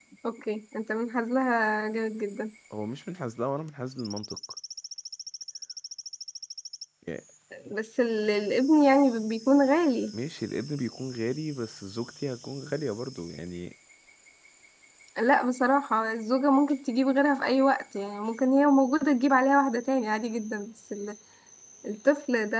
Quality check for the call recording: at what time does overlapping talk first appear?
none

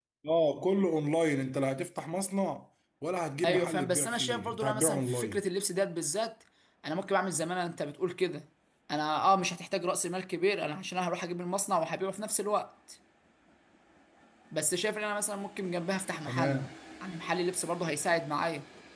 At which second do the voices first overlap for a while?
3 s

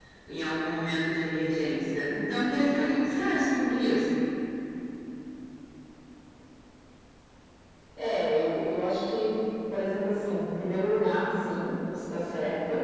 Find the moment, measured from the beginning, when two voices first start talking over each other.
none

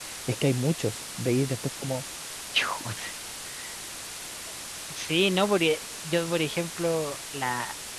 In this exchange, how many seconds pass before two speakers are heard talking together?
none

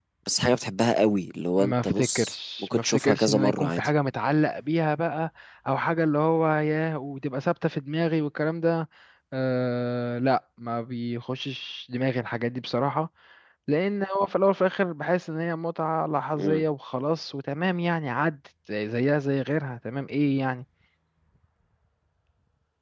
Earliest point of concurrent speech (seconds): 2 s

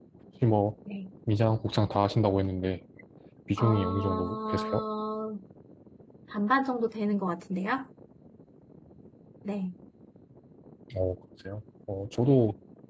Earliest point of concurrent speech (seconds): 4 s

